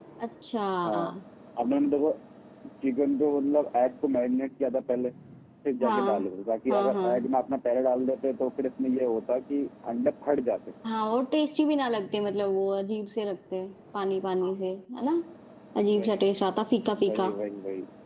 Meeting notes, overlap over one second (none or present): none